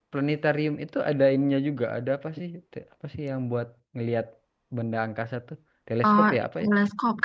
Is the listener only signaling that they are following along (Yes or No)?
No